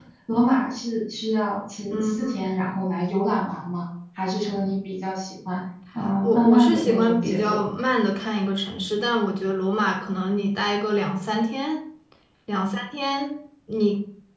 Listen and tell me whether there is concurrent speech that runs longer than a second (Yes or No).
Yes